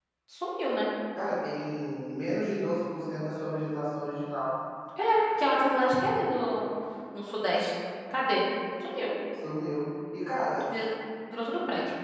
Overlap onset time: none

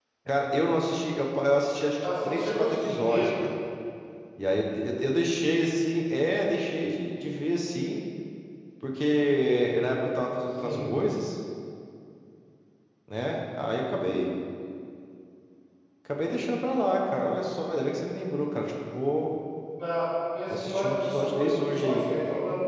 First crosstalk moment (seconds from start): 2.0 s

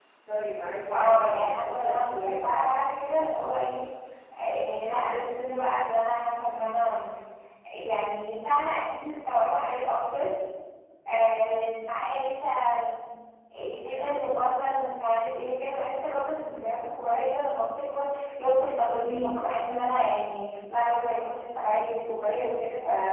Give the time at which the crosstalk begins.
0.9 s

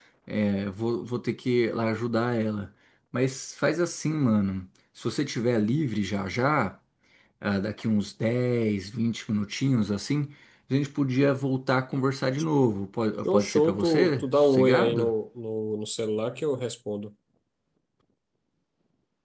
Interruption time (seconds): 13.2 s

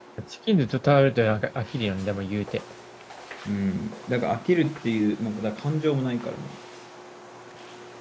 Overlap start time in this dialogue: none

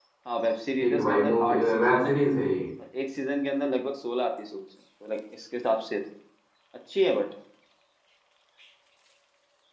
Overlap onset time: 0.8 s

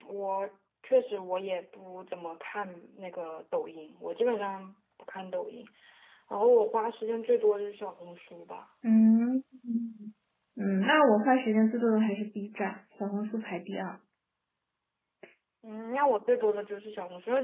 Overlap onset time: none

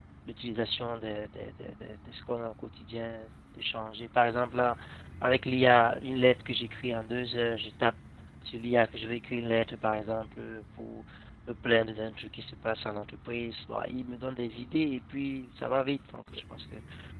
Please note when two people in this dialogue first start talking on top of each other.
none

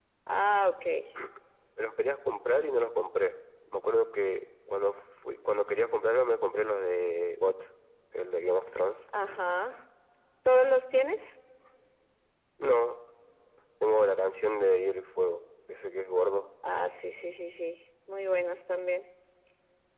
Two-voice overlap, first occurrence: none

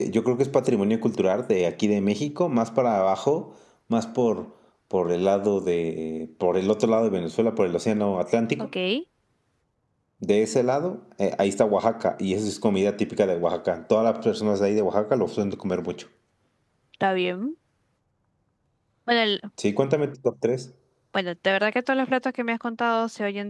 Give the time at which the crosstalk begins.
none

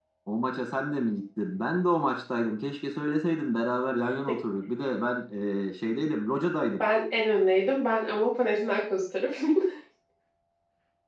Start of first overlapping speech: none

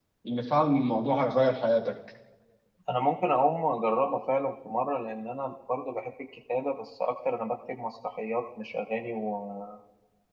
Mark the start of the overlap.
none

